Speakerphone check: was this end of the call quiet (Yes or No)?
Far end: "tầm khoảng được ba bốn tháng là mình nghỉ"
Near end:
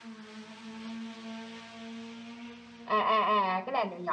No